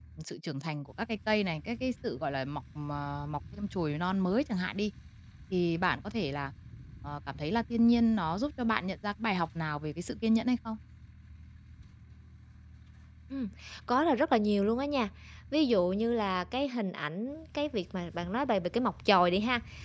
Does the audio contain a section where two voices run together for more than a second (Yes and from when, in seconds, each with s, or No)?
No